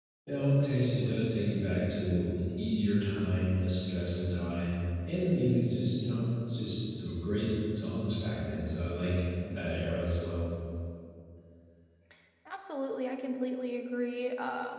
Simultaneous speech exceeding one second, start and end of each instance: none

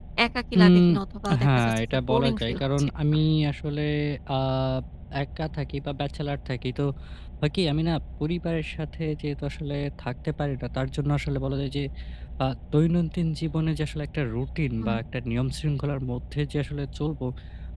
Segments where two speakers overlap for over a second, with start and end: 1.4-2.9

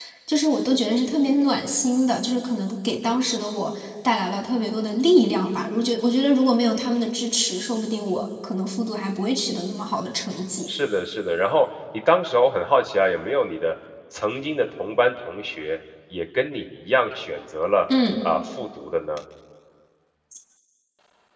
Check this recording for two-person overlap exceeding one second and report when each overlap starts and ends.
none

